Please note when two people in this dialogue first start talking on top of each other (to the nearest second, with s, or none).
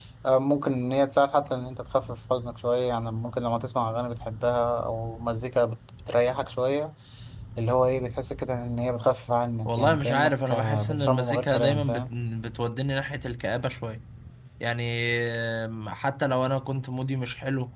10 s